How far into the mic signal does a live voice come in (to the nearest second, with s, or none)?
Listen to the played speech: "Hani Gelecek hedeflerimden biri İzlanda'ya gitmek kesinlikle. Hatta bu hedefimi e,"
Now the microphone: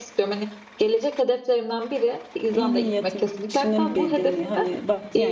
2 s